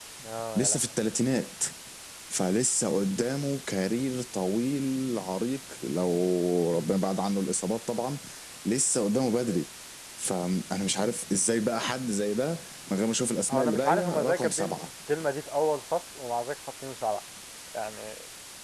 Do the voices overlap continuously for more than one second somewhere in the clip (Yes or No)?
Yes